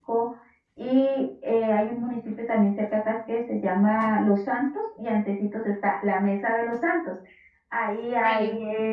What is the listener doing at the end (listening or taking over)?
listening